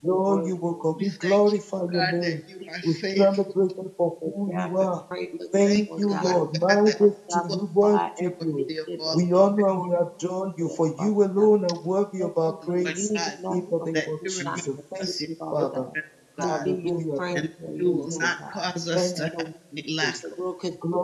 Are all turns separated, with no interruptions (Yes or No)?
No